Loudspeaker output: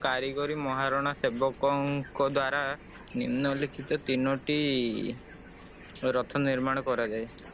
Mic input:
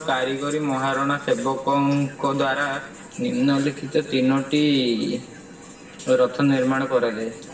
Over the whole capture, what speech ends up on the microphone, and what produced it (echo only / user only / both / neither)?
echo only